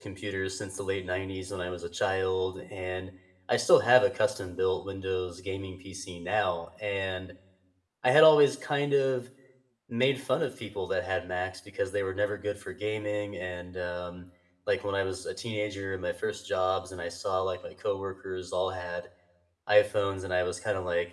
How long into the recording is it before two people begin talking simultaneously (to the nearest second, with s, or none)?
none